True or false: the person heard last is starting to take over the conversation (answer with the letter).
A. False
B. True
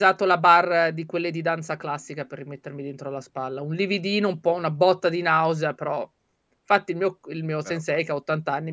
A